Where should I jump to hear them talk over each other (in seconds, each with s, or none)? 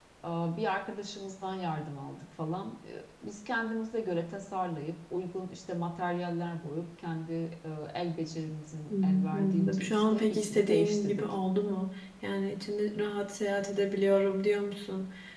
8.9 s